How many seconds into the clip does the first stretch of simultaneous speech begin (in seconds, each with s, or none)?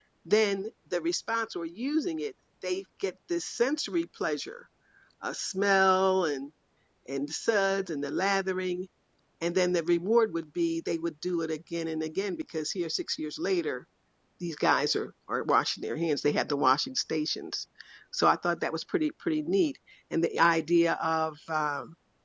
none